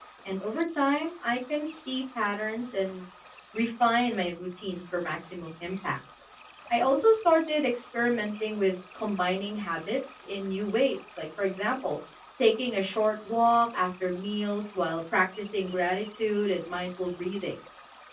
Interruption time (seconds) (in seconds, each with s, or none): none